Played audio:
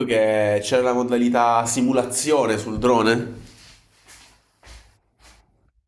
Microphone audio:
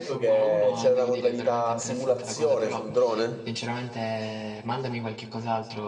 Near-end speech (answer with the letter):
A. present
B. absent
A